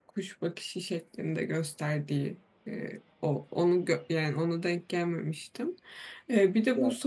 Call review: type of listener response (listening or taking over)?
listening